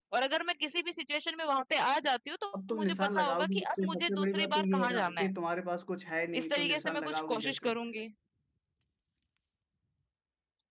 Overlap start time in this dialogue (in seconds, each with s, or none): 2.7 s